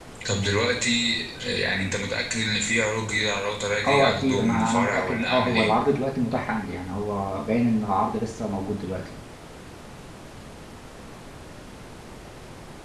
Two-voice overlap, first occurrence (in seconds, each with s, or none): 3.8 s